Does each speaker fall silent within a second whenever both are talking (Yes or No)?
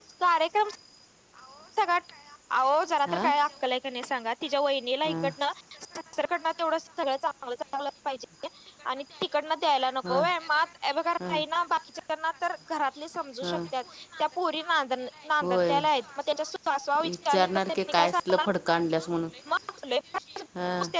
No